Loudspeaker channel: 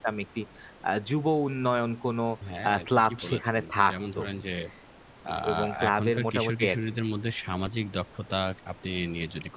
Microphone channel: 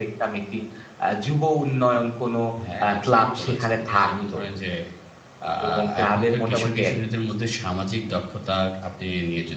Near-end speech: none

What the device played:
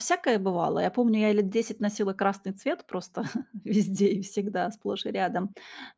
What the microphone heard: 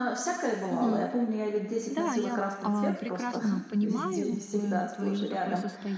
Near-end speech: present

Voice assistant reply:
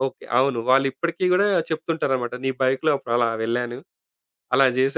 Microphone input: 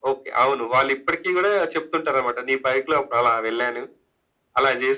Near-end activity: none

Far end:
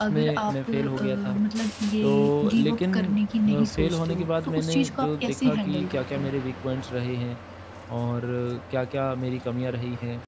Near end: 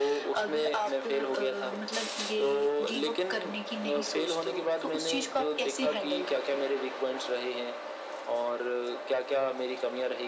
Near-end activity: none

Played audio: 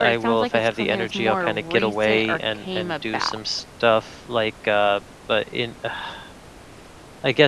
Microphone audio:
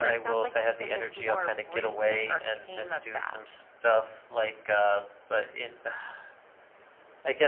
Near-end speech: none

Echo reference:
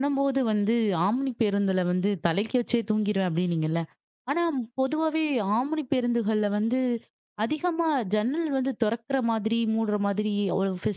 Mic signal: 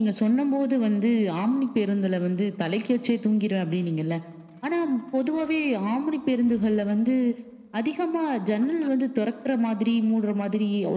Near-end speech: none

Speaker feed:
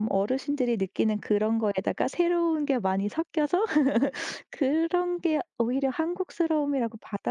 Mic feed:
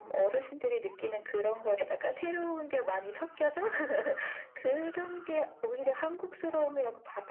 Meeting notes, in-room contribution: none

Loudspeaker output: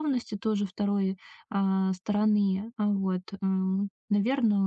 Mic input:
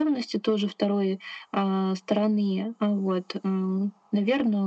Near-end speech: none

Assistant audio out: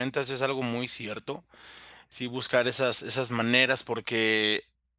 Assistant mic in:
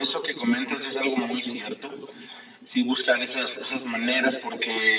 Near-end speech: none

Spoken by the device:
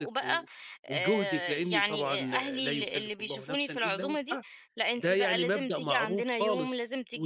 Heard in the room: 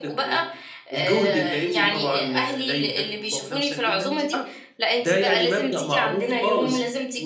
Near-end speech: none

